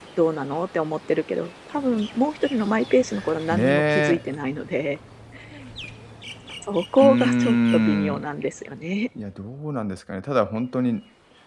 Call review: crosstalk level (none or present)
present